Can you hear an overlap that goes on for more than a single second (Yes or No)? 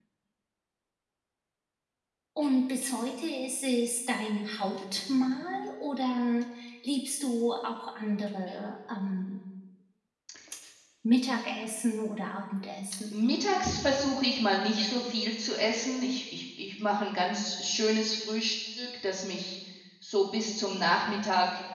No